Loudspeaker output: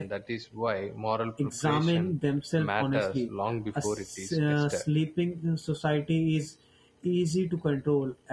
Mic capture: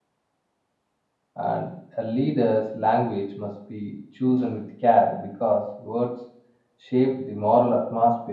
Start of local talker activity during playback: 1.4 s

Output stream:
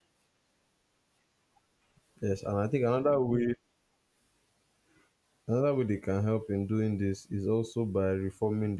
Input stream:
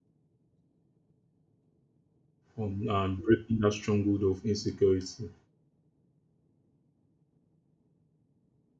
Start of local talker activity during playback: 2.6 s

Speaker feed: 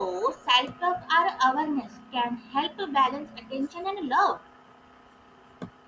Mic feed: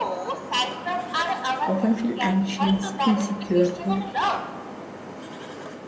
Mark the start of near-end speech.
1.6 s

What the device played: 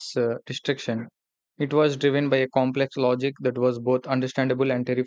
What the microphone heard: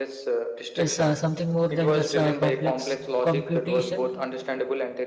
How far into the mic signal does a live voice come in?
0.8 s

